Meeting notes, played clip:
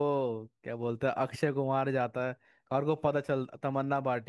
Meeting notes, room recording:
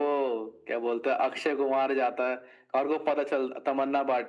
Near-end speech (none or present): none